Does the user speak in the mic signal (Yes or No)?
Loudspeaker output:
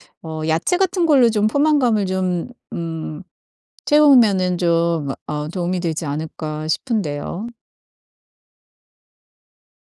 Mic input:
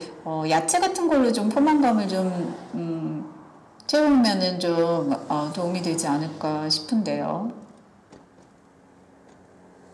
No